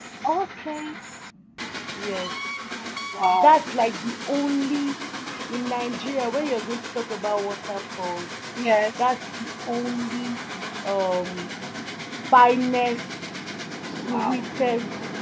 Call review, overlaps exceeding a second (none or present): none